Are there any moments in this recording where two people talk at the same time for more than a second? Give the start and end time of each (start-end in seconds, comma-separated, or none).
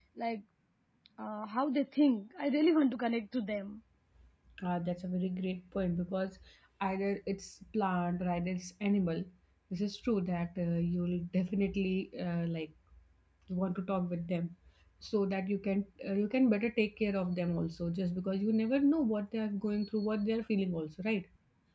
none